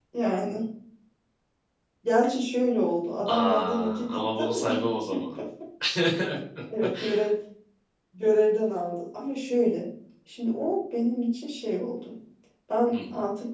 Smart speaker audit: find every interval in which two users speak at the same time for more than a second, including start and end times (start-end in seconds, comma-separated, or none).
3.3-4.8